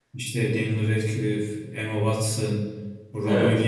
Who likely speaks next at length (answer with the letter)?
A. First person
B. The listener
A